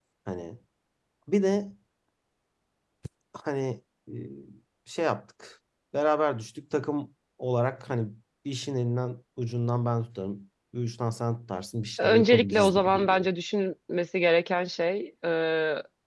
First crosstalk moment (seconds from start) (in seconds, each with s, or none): 12.0 s